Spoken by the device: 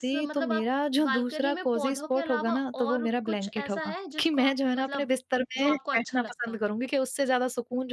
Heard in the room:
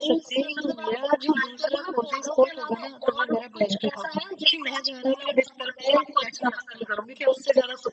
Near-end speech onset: none

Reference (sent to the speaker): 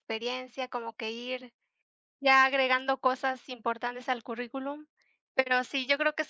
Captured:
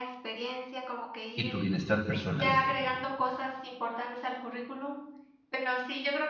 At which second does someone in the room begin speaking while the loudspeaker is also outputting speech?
1.3 s

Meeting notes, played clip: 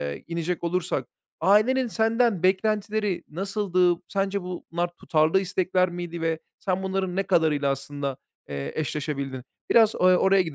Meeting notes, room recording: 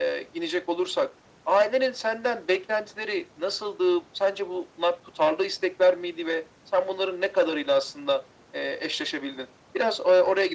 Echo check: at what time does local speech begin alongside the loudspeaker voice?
none

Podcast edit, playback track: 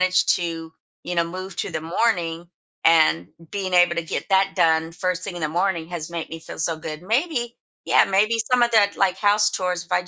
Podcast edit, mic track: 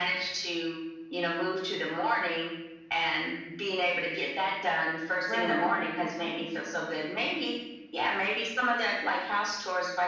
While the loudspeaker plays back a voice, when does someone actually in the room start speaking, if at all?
5.3 s

